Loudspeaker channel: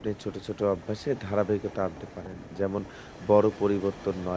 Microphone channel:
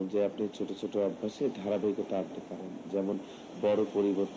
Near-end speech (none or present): none